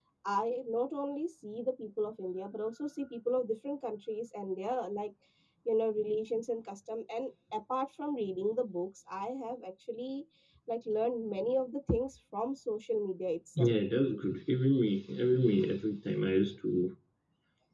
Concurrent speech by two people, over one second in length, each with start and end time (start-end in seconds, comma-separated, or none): none